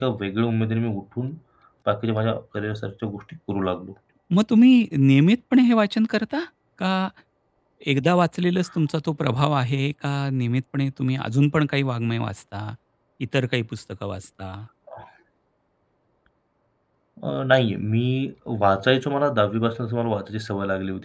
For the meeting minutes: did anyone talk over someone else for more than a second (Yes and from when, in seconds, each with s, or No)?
No